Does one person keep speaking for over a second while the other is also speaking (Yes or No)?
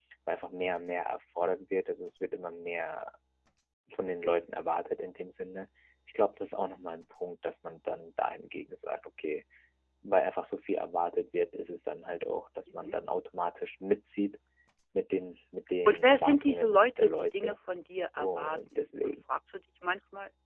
Yes